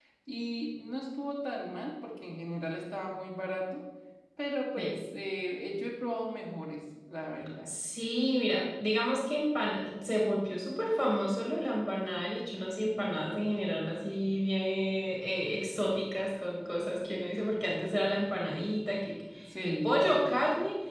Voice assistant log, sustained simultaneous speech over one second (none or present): none